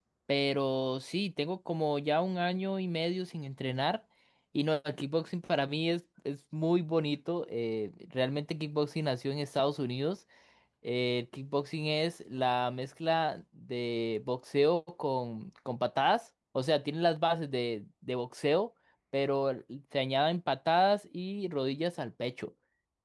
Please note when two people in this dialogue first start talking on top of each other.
none

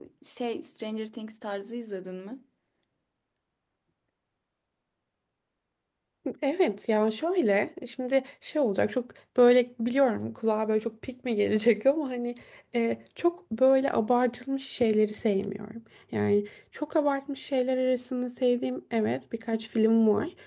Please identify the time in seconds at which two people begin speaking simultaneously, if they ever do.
none

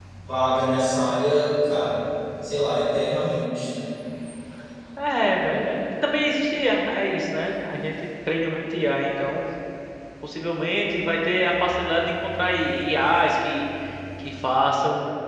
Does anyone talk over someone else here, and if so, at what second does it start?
none

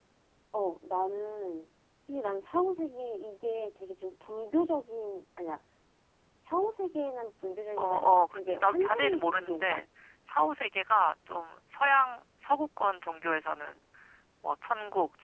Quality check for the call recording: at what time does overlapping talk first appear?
8 s

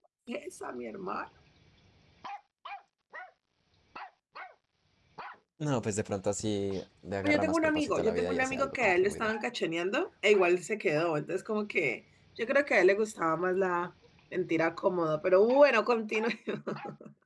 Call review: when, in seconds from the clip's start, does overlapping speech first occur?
7 s

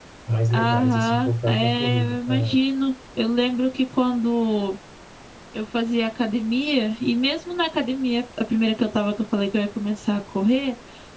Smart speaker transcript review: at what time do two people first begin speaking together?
1 s

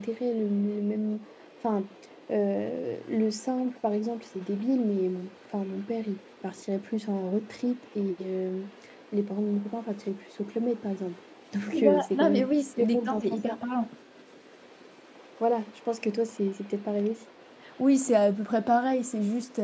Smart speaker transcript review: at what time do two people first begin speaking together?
12 s

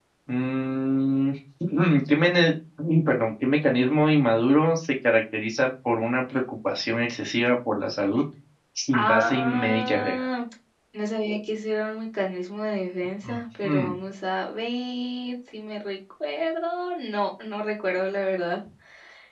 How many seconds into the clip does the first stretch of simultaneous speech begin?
9 s

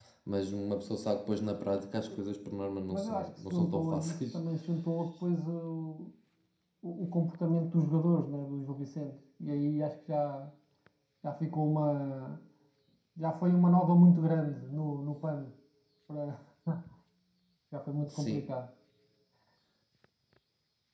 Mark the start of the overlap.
3 s

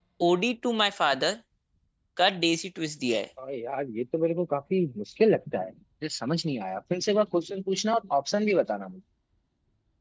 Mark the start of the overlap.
none

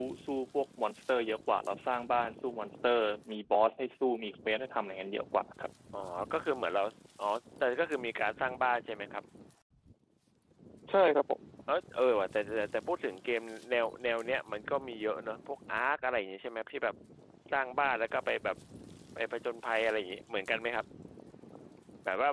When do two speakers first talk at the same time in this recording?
none

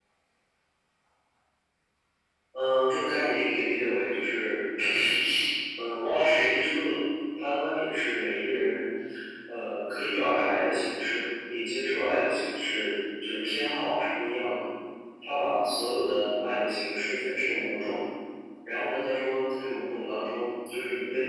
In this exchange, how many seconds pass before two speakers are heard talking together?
none

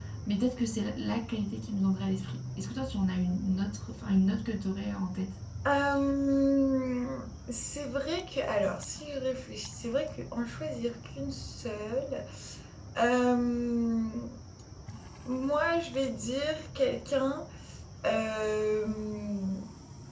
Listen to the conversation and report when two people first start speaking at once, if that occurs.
none

